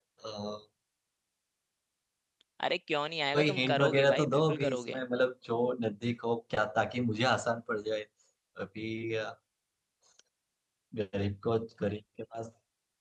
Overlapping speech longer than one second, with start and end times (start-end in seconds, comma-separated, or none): 3.3-5.0